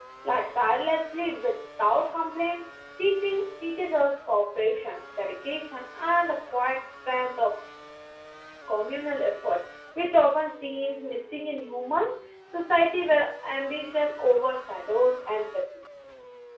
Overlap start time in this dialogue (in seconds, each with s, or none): none